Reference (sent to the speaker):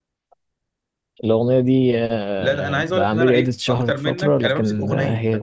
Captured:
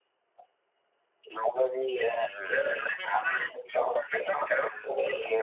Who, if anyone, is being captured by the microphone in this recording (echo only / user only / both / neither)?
echo only